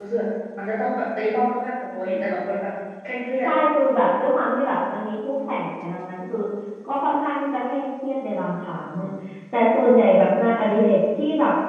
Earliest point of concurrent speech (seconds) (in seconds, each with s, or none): none